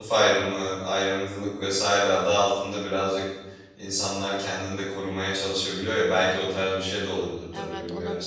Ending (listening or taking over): taking over